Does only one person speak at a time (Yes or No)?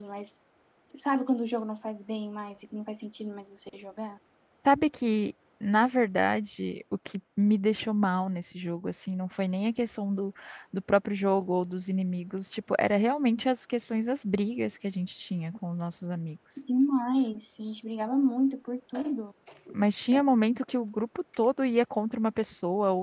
Yes